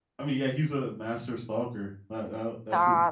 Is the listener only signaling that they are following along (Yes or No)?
No